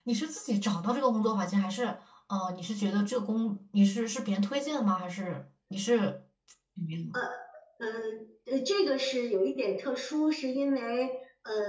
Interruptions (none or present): none